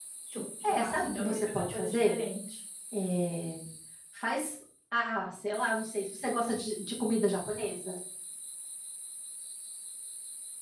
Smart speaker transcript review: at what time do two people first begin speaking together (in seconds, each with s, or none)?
0.6 s